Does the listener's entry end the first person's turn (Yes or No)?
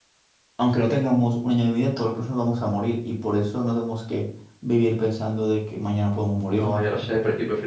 Yes